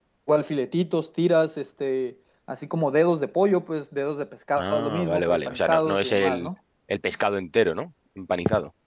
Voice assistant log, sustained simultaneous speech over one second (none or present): present